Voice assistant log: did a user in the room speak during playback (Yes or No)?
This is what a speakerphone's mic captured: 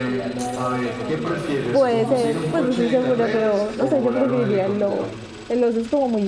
Yes